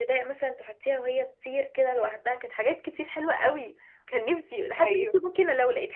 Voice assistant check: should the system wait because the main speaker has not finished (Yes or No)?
Yes